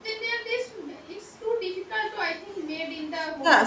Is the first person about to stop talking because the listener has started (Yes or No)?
Yes